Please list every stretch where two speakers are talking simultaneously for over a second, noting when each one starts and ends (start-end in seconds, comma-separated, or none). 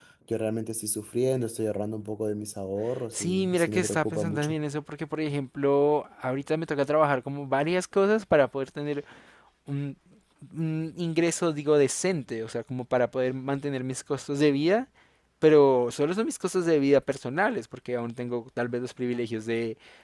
3.1-4.6